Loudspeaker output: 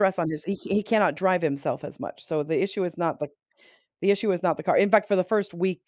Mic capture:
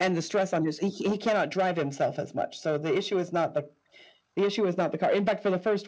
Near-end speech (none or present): none